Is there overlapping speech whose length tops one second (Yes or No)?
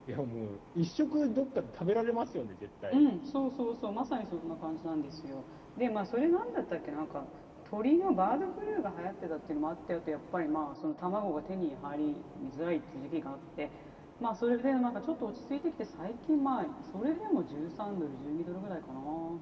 No